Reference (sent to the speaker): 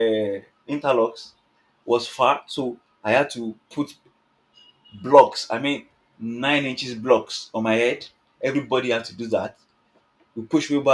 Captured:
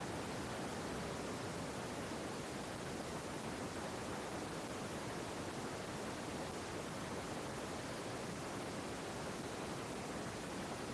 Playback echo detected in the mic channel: No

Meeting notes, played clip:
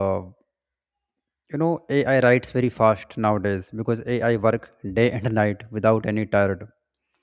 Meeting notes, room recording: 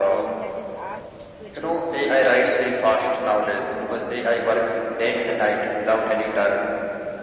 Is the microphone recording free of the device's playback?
No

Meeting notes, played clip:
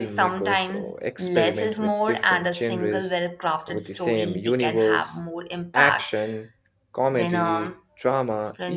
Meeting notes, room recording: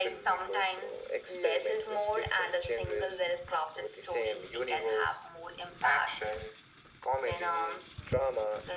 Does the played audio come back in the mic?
Yes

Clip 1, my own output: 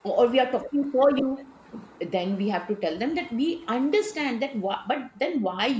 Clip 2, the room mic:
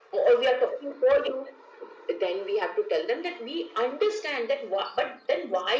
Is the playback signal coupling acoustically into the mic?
Yes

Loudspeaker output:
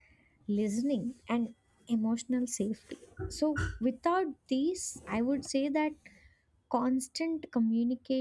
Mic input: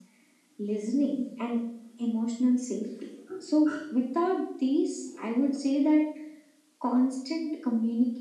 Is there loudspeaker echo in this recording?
Yes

